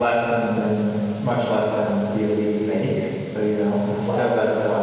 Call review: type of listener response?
listening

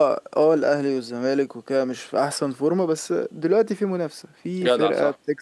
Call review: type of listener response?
listening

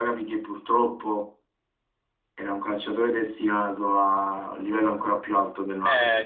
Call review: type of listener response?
taking over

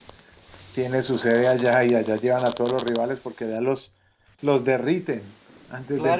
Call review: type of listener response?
taking over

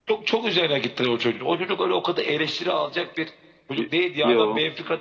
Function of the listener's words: listening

